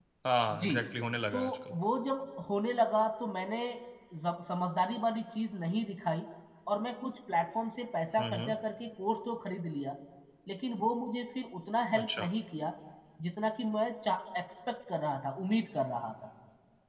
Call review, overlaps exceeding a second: none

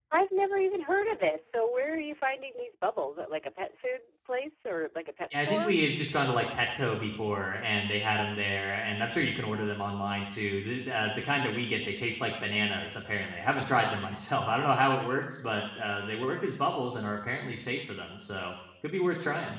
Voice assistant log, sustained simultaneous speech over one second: none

